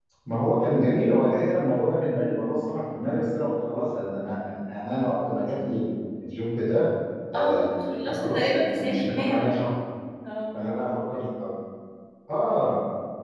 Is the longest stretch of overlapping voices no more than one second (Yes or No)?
No